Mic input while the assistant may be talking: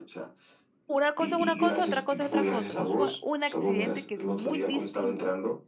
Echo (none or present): present